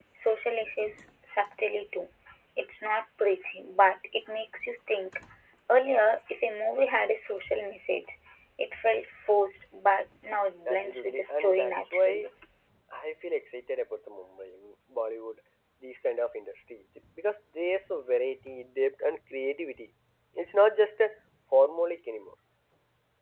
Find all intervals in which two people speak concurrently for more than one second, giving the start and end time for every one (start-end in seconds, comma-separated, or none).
10.7-12.3